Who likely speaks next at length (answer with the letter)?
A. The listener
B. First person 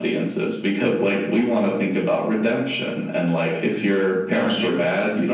B